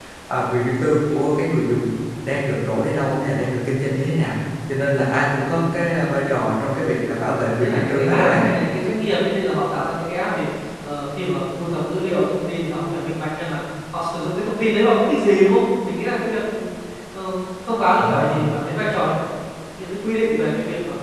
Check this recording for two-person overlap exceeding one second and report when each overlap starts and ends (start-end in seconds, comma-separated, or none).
7.2-8.4